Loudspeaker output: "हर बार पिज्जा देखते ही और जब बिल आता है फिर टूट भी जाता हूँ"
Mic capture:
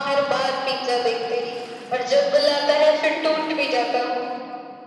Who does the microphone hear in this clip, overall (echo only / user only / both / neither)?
echo only